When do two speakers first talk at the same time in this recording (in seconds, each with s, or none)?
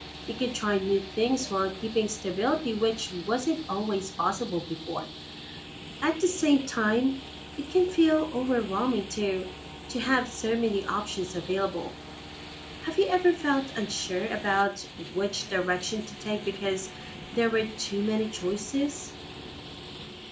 none